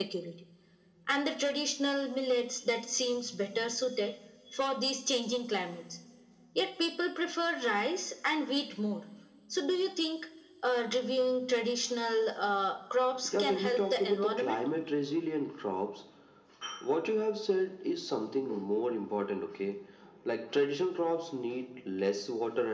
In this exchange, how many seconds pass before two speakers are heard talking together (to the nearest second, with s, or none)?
13 s